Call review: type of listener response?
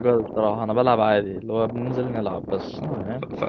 taking over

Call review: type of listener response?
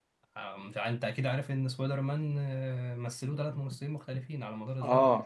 taking over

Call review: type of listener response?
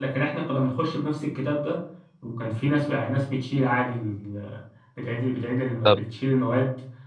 listening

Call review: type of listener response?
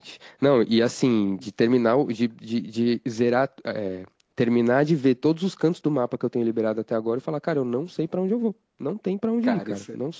taking over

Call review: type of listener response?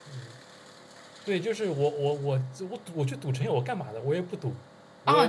taking over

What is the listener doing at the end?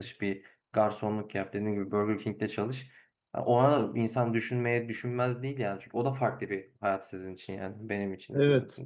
taking over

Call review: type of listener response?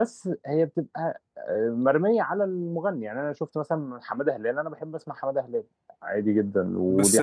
taking over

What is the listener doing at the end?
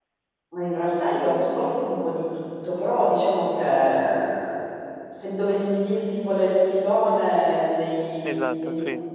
listening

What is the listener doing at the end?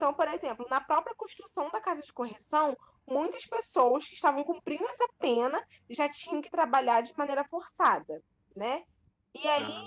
listening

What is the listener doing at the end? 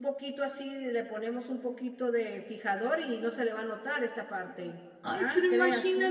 taking over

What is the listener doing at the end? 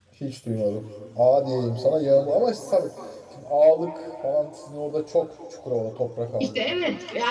taking over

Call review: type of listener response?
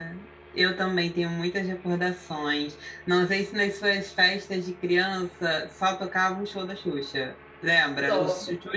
listening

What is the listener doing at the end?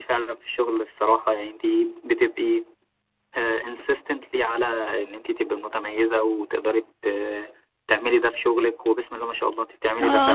taking over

